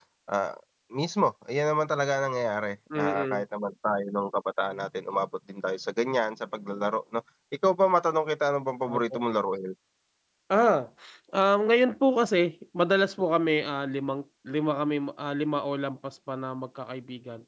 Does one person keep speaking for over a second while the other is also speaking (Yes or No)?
No